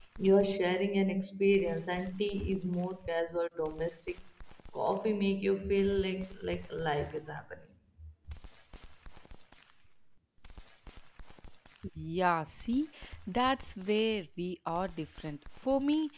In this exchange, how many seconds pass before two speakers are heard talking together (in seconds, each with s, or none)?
none